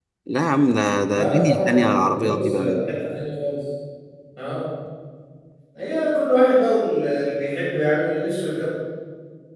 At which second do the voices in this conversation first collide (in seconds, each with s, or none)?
1.1 s